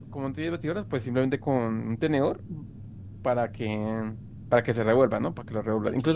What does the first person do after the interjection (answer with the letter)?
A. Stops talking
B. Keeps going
B